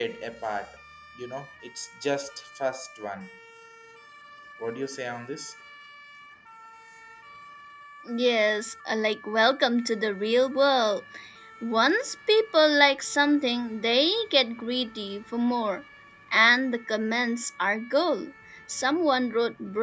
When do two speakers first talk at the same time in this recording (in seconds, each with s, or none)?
none